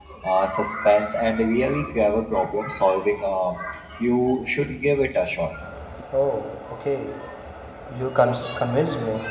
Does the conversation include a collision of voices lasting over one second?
No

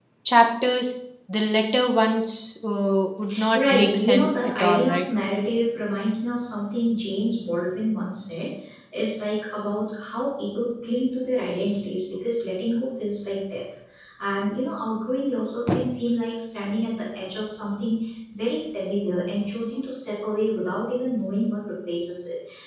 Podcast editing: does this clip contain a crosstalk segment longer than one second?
Yes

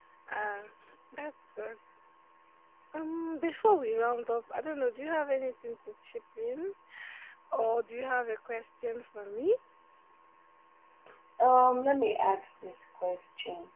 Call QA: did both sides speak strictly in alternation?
Yes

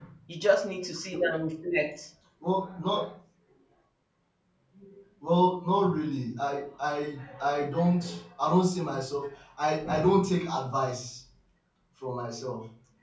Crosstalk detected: No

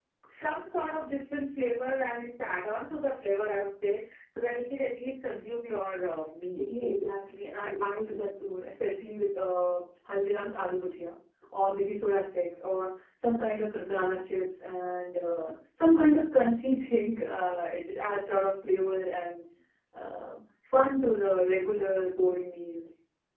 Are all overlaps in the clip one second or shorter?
Yes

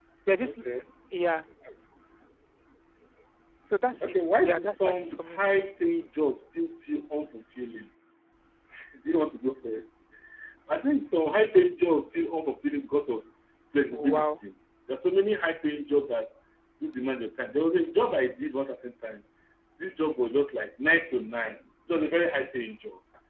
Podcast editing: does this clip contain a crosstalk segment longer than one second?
Yes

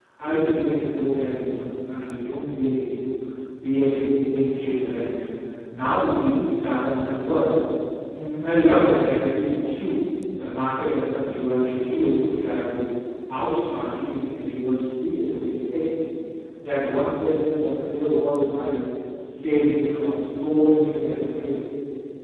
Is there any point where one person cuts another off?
No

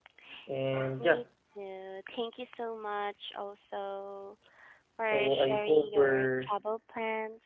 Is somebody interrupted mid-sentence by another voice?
Yes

